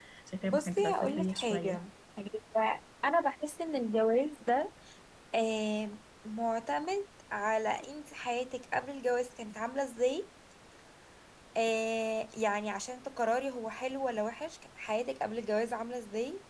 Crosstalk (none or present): present